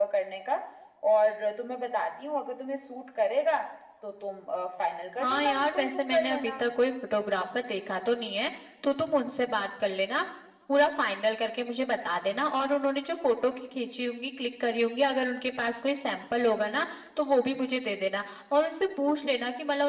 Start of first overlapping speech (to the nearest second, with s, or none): 5 s